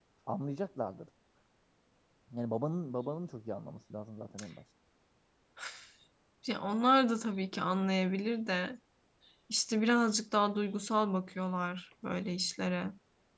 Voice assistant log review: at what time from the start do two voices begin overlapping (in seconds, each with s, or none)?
none